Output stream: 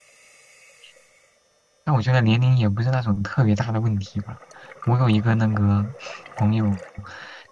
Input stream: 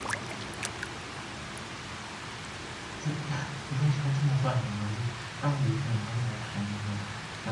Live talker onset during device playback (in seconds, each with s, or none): 3.0 s